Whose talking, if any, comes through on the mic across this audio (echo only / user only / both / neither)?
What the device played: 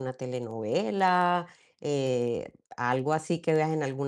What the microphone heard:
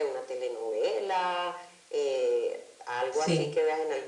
both